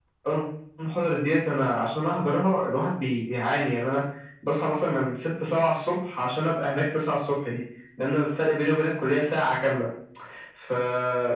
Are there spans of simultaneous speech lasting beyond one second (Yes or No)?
No